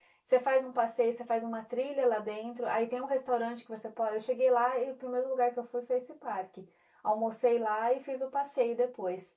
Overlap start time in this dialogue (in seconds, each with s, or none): none